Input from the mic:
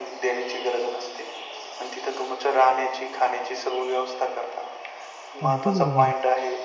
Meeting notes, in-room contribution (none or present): present